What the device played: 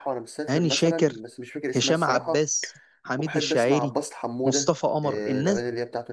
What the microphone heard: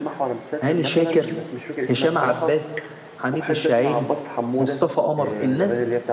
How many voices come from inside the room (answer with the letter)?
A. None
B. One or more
A